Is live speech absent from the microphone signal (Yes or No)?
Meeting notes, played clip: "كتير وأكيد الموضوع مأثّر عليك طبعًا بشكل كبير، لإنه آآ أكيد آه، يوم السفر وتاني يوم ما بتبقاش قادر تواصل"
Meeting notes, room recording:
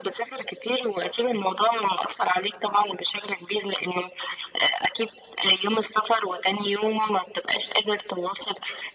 Yes